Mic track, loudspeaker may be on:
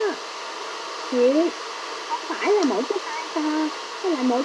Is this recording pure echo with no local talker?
No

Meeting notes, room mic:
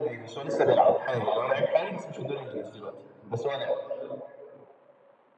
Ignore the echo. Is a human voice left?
No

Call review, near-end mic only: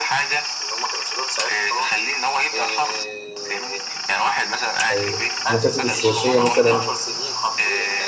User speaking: Yes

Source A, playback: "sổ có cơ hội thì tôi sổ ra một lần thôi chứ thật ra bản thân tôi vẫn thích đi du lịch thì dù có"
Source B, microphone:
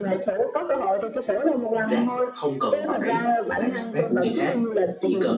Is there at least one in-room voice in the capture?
Yes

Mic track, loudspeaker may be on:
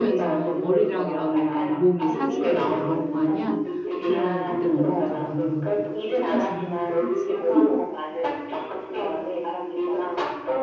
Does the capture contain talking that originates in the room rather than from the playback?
Yes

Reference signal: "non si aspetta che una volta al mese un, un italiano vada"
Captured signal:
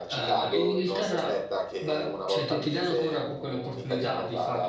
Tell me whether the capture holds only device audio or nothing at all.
No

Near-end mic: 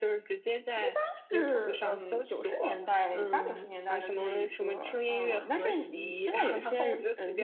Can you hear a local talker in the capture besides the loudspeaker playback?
Yes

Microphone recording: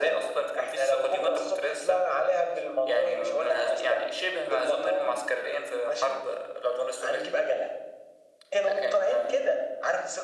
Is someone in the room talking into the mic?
No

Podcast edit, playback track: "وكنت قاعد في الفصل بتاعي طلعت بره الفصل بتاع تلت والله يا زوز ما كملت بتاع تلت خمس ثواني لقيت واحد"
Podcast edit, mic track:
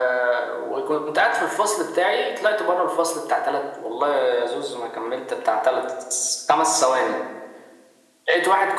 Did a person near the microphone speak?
No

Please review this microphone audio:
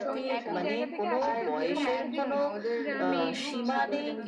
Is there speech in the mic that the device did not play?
Yes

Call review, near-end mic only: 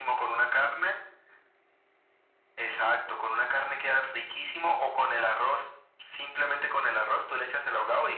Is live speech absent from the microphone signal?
Yes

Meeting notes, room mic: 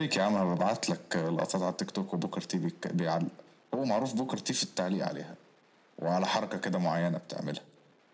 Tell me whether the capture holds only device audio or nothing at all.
Yes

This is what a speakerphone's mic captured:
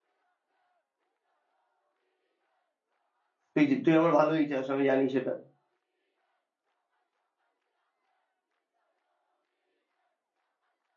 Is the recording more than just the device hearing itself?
Yes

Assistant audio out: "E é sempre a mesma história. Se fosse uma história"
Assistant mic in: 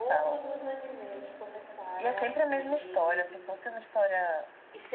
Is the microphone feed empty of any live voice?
No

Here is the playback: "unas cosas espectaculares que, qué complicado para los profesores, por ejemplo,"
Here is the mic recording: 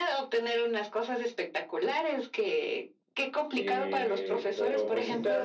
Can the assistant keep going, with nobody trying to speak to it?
No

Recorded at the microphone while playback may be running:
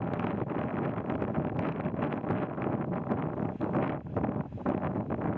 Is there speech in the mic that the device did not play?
No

